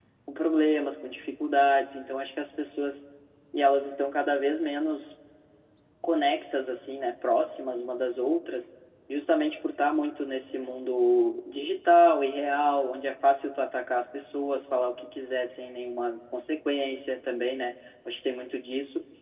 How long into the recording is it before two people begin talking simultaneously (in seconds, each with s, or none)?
none